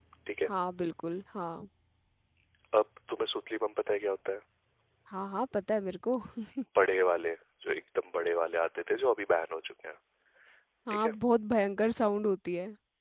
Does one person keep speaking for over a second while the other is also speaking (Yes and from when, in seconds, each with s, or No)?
No